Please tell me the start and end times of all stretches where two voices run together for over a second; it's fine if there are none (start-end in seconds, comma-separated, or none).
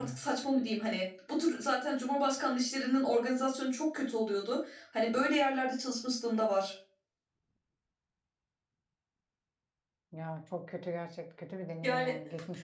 none